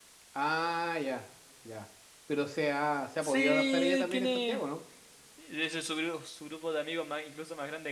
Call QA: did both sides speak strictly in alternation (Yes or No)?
No